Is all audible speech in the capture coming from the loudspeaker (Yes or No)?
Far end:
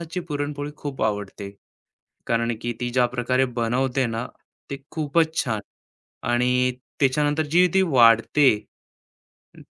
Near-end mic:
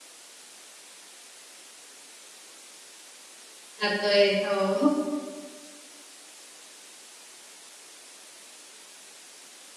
No